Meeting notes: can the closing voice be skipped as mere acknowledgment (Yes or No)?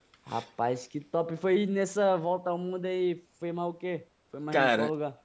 No